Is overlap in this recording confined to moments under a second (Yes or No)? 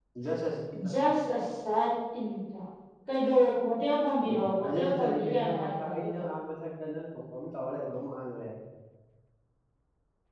No